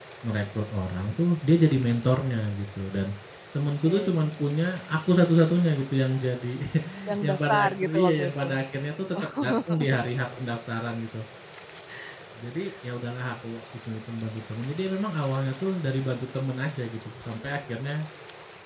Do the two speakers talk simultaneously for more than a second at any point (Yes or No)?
Yes